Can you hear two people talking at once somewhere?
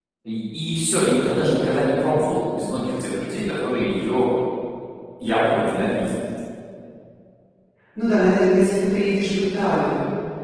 No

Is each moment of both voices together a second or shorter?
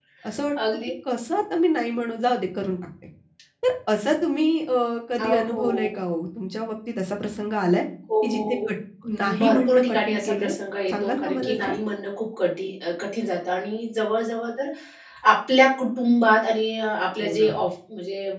No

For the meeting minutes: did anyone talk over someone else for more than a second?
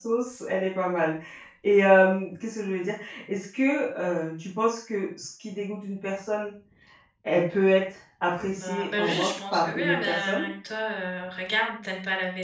Yes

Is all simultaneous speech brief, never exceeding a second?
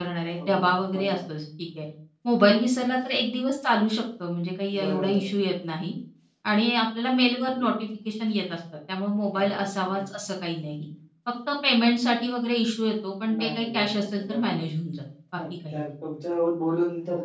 No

